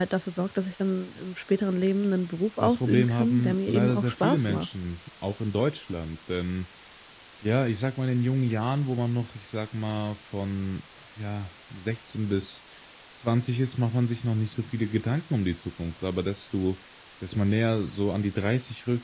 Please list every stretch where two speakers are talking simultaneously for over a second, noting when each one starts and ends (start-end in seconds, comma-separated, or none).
2.6-4.7